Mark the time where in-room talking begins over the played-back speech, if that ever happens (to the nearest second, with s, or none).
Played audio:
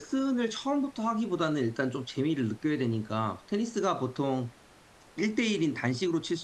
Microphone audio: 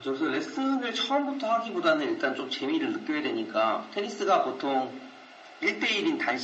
none